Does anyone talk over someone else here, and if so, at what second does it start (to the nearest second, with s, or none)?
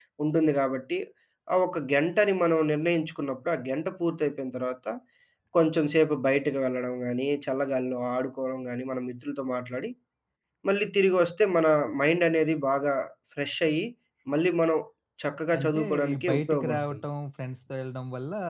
16 s